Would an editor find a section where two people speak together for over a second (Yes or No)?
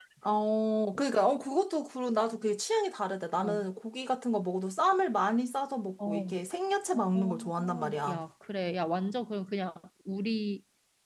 Yes